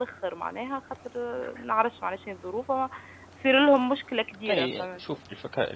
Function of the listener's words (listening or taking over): taking over